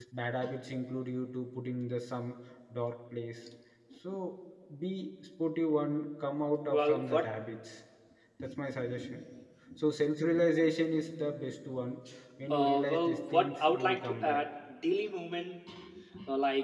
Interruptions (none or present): present